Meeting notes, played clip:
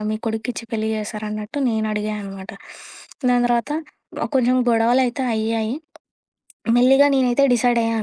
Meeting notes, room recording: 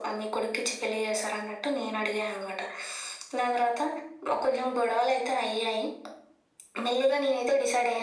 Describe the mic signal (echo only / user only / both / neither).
echo only